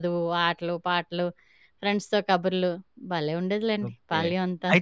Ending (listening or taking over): taking over